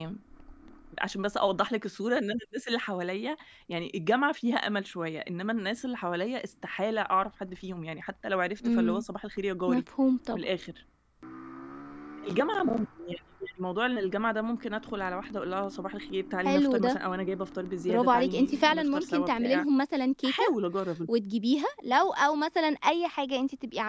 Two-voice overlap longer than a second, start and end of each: 17.9-19.6

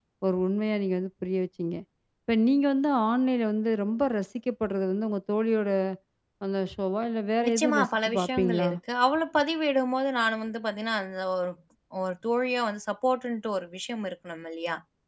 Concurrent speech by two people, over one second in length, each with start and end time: 7.5-8.7

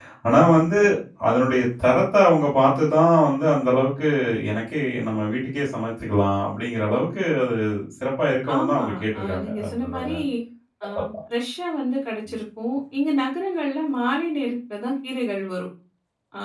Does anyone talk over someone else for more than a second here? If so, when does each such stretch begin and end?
8.6-10.1

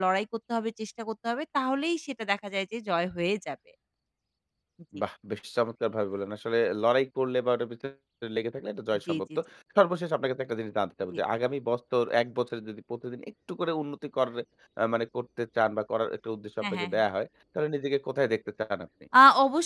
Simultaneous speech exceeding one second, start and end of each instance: none

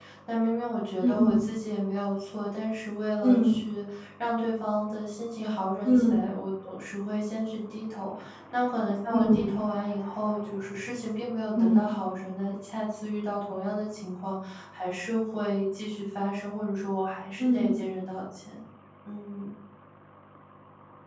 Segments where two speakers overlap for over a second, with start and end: none

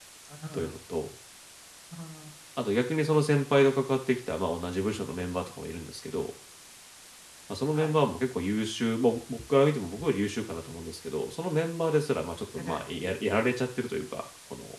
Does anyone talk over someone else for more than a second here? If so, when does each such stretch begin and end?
none

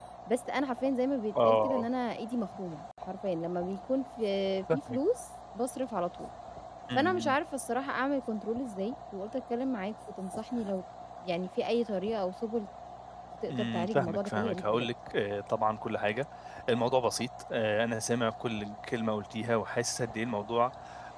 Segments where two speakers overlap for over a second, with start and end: 13.5-14.9

